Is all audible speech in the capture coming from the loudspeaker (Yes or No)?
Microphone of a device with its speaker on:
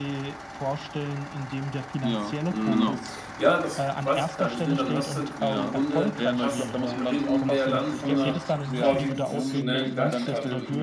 No